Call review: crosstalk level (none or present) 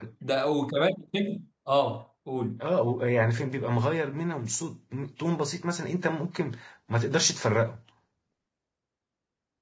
none